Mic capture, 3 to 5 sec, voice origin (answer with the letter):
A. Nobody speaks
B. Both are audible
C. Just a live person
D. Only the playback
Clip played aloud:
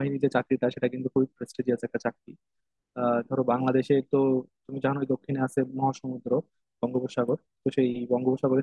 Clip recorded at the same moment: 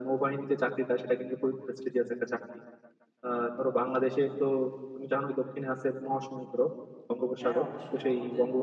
D